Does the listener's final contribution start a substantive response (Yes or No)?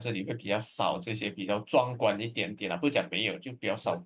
Yes